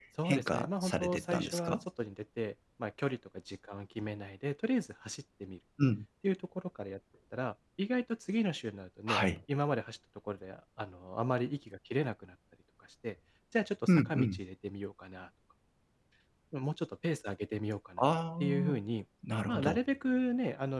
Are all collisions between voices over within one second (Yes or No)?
No